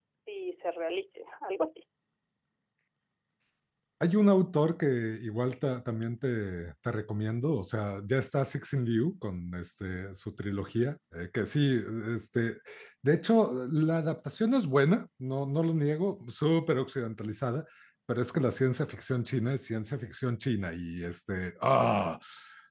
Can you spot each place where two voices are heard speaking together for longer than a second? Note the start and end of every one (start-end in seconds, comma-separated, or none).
none